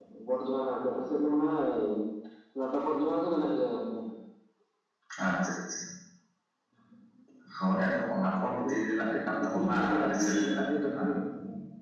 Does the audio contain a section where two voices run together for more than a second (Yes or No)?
Yes